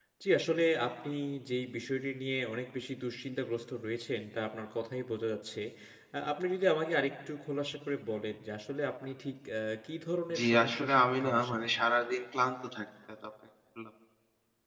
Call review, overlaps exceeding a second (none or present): present